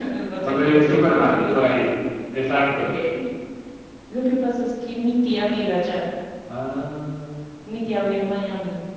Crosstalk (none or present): present